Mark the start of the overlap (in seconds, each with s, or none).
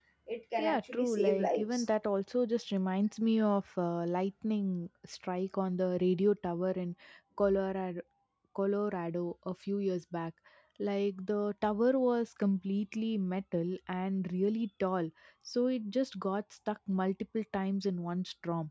0.6 s